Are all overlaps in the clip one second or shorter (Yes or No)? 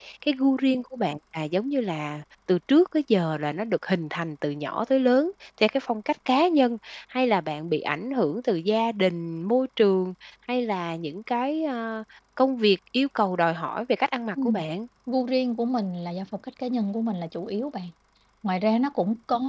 Yes